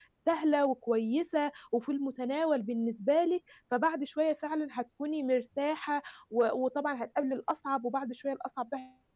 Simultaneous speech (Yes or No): No